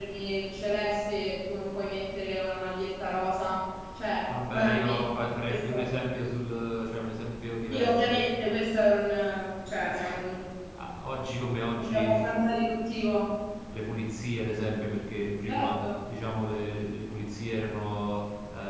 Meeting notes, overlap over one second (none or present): present